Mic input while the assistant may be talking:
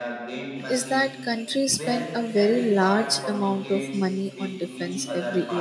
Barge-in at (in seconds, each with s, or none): 0.7 s